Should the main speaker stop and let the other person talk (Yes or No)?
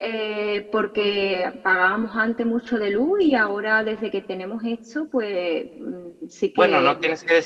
Yes